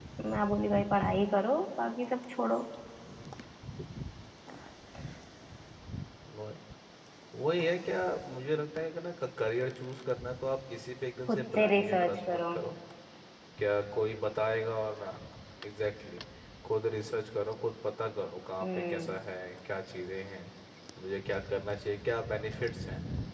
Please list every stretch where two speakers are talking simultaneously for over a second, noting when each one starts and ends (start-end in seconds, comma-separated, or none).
11.3-12.5